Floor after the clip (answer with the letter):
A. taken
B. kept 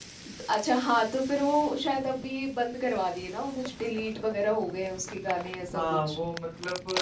A